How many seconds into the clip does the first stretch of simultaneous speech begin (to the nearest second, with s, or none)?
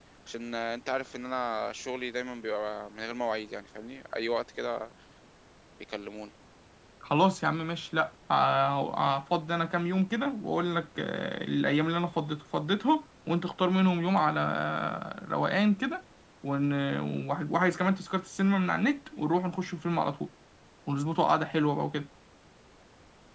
none